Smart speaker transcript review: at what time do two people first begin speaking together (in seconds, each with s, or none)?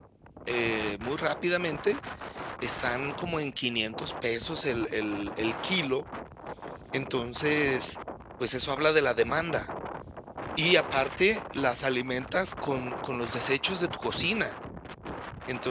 none